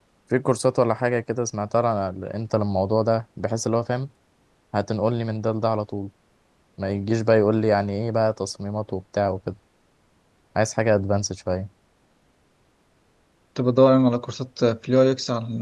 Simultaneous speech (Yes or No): No